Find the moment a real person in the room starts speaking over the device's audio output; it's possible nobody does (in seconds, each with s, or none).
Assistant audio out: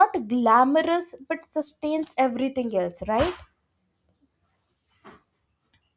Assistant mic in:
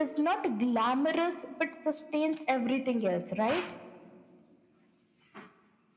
none